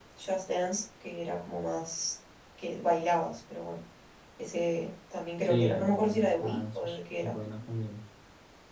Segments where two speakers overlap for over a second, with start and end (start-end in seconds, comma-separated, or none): 5.4-7.3